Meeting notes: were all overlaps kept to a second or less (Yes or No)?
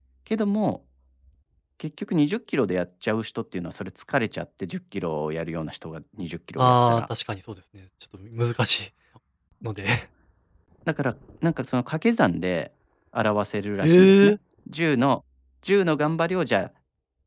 Yes